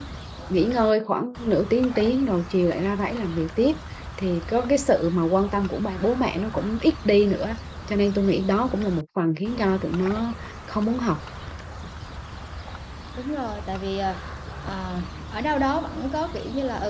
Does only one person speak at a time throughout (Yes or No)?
Yes